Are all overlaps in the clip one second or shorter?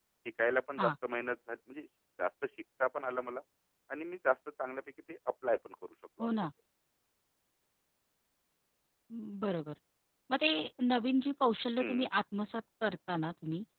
Yes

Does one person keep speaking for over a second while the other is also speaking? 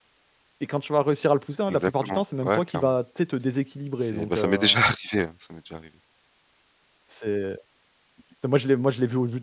Yes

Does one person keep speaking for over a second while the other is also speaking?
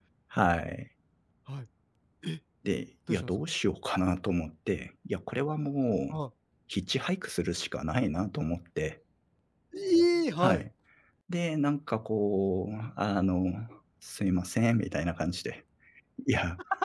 No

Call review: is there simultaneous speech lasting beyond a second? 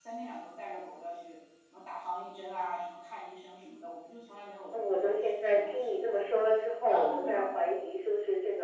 Yes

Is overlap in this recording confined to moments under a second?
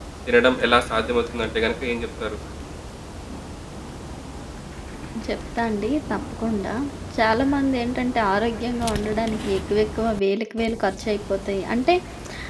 Yes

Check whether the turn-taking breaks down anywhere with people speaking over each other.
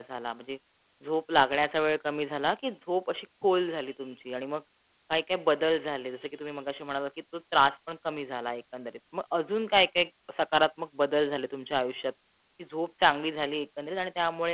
No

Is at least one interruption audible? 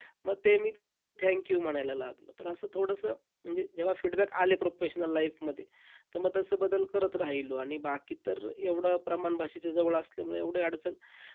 No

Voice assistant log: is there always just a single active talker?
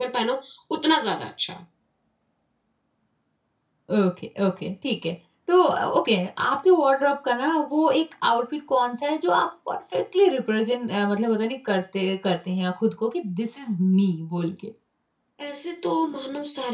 Yes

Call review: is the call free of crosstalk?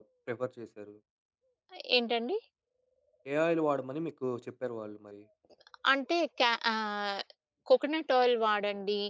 Yes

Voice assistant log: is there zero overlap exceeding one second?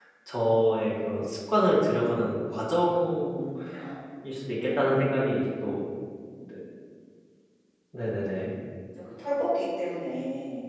Yes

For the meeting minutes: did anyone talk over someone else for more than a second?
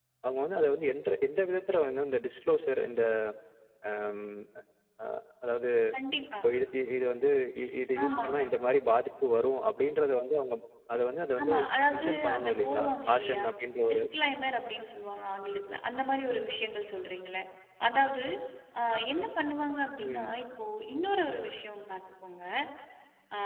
Yes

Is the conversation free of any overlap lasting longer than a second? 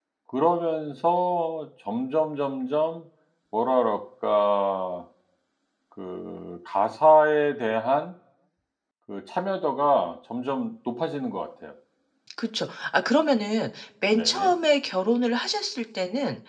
Yes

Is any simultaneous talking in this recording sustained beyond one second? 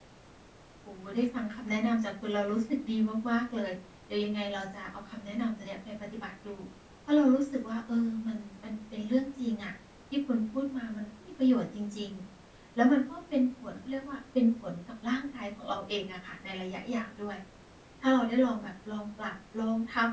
No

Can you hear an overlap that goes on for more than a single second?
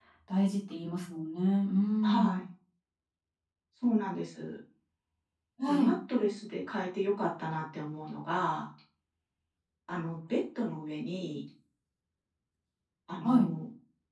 No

